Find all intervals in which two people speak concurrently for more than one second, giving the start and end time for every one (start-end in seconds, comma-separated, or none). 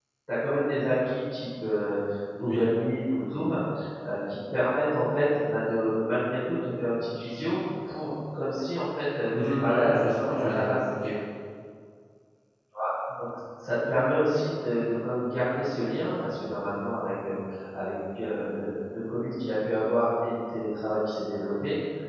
9.3-10.7